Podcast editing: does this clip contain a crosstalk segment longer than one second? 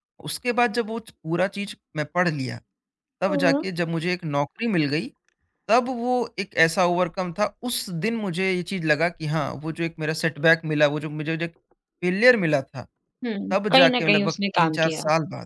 Yes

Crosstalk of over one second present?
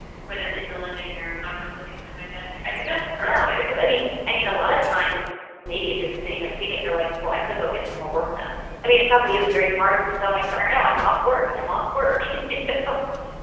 No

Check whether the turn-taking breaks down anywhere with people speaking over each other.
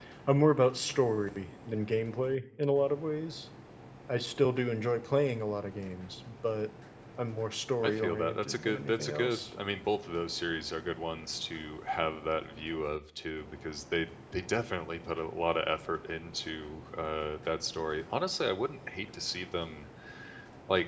Yes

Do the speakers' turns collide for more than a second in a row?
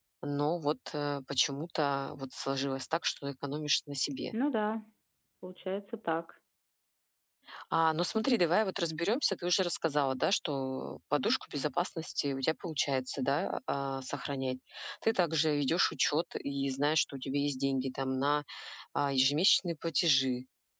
No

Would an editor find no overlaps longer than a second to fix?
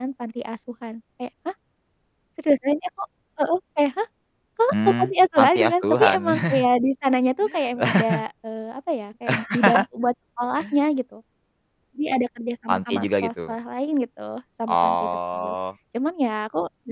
No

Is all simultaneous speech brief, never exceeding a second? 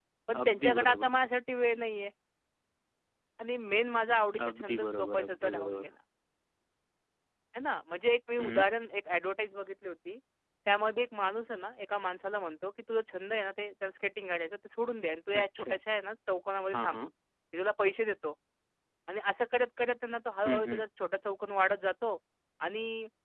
No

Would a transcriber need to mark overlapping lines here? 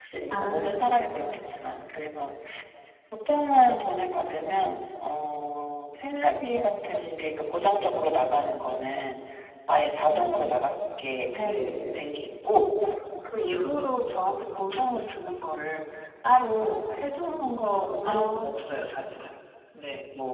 Yes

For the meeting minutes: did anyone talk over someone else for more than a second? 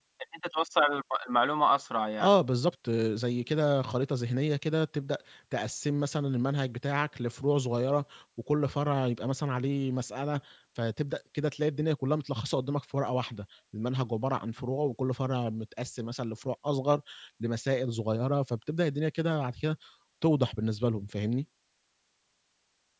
No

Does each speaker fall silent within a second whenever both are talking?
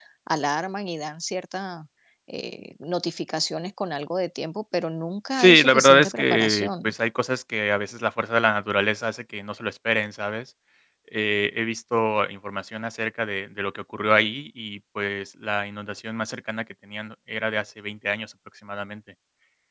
No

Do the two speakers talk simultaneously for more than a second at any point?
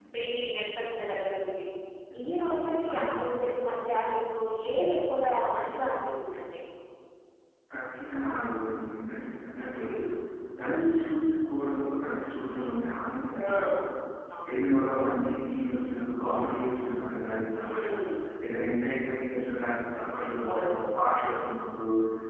No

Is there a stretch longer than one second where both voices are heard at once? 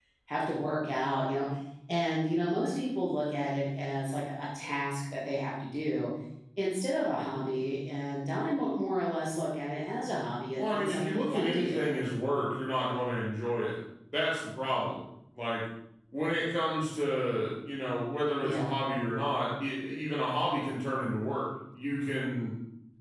Yes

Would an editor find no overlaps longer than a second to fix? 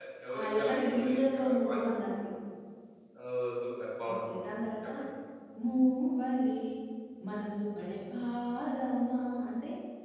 No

